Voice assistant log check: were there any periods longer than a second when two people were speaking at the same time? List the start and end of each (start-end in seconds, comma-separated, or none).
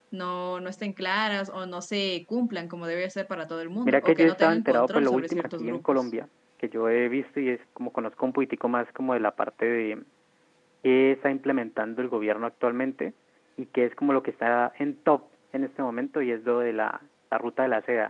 3.9-6.1